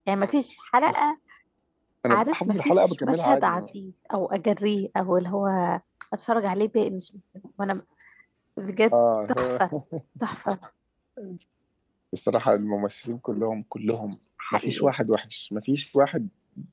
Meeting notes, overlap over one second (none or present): present